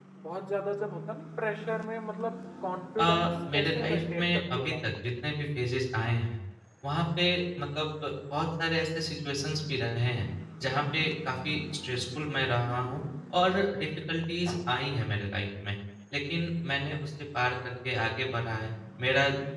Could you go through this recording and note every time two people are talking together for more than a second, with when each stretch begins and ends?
3.0-4.8

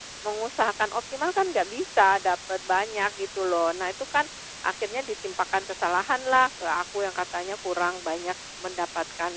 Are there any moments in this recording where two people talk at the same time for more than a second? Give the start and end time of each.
none

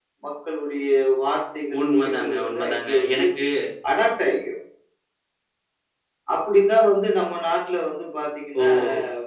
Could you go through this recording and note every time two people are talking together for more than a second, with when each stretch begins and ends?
1.8-3.2

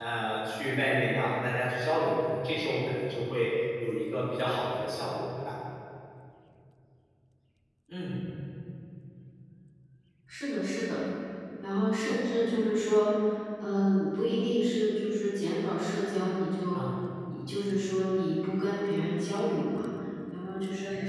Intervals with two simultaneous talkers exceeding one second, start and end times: none

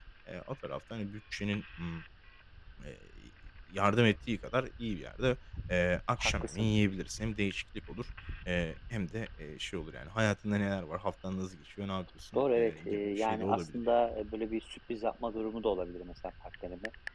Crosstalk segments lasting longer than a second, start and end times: 12.4-13.9

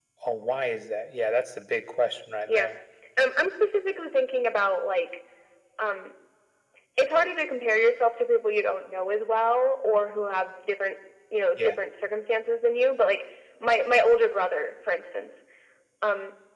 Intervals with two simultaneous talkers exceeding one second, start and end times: none

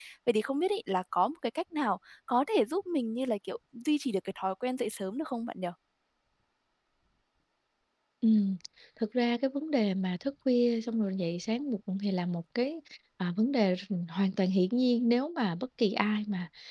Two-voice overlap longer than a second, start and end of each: none

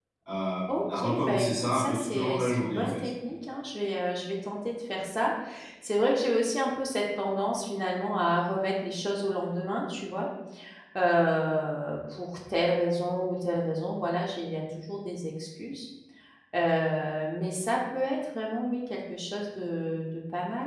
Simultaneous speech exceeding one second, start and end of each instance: 0.7-3.1

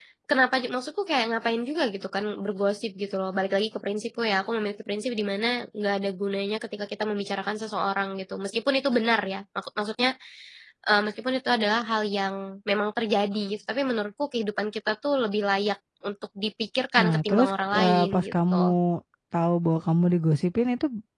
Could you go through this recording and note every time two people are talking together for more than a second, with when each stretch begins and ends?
17.0-18.8

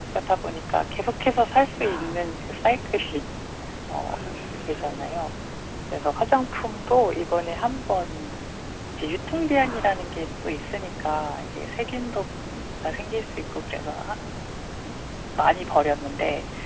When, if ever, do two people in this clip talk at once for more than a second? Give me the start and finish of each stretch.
none

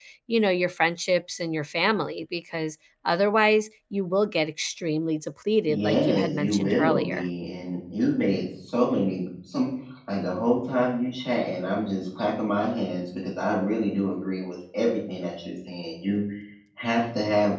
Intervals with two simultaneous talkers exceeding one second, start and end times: 5.7-7.3

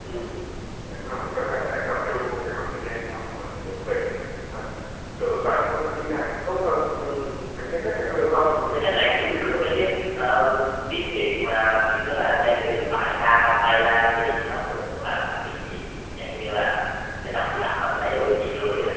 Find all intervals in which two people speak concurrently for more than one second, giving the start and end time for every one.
none

